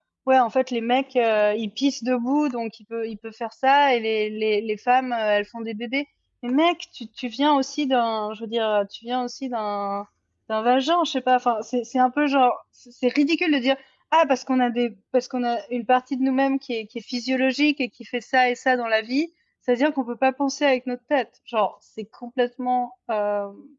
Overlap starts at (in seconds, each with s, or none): none